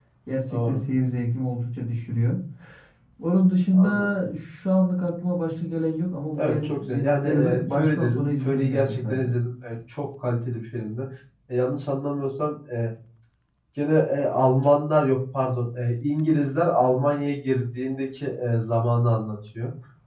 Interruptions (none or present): present